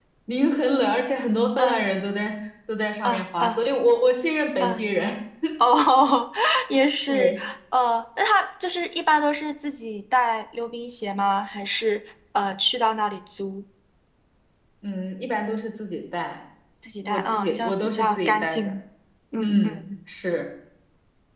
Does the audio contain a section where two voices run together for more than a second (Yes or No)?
Yes